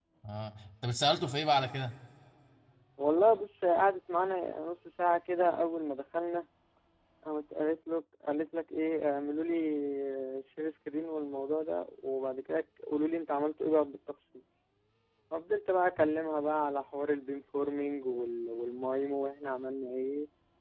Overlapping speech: No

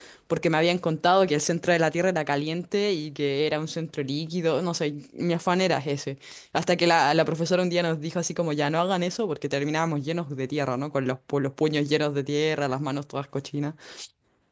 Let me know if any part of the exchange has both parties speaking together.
No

